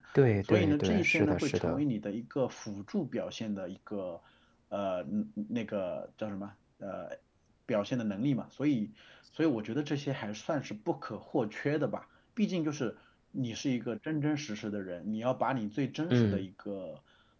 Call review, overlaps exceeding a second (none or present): present